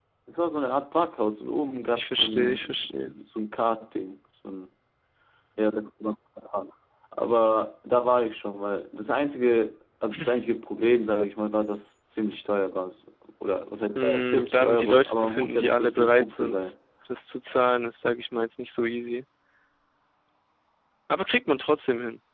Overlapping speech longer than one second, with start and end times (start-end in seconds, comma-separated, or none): 1.9-3.1, 13.9-16.7